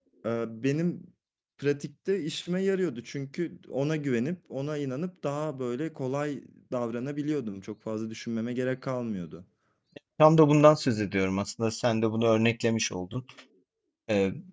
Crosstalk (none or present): none